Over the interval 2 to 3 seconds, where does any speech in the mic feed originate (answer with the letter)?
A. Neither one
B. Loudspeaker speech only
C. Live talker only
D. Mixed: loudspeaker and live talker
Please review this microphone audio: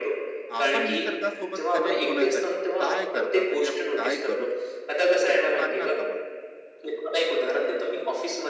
D